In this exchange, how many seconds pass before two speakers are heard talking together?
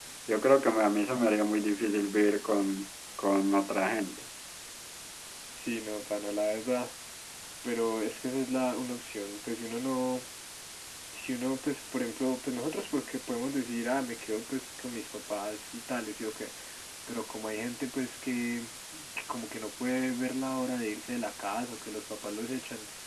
none

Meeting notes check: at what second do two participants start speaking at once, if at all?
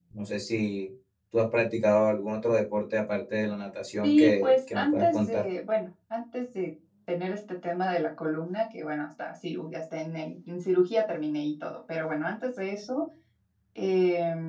4 s

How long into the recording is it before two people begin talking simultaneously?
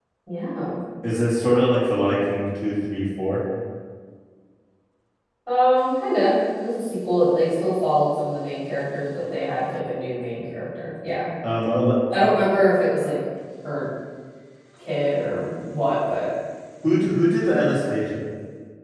none

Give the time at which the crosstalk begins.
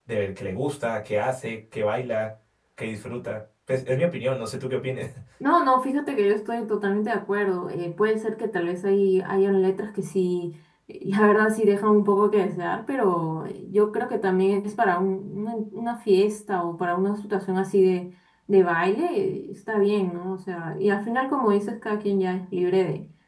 none

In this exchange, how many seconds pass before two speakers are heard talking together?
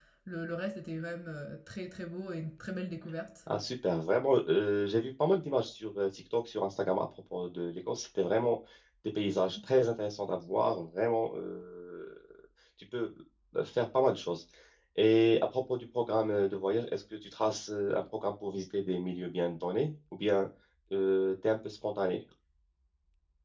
none

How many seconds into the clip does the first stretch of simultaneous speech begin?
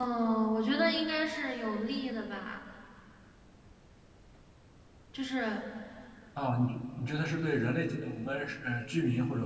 none

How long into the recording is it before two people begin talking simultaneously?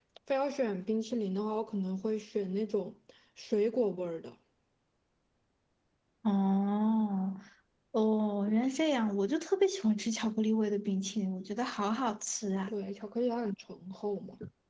none

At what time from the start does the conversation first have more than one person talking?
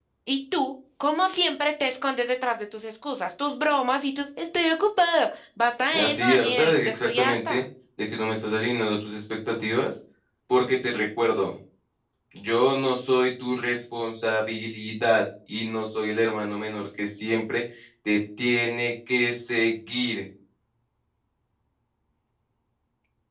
6 s

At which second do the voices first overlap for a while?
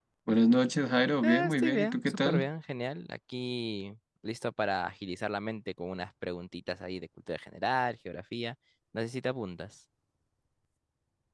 1 s

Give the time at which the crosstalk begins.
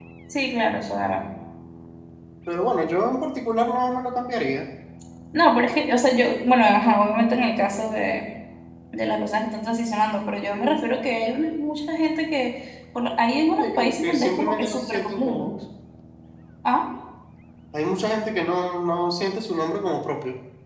14 s

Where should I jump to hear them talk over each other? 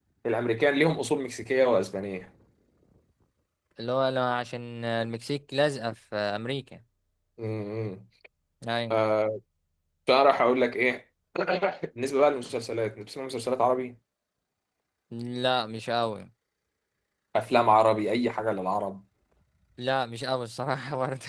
none

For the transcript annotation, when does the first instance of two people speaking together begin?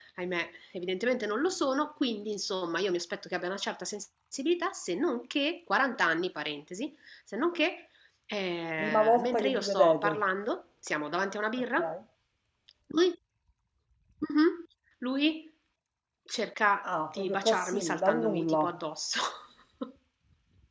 9 s

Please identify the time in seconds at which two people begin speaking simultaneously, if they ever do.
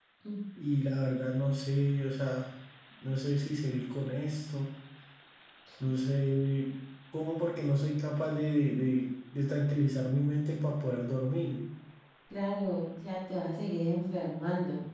none

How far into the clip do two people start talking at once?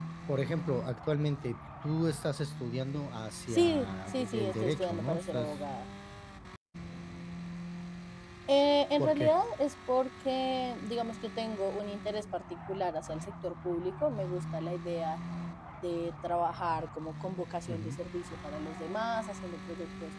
3 s

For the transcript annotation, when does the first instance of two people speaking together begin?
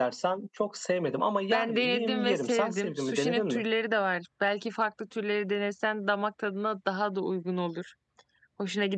2 s

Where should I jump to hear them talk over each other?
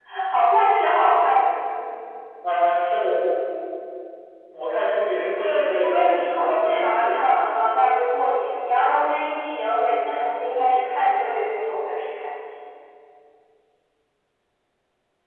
5 s

